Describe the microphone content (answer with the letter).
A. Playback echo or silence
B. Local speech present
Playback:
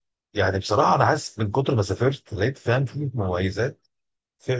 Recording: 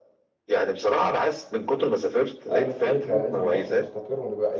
B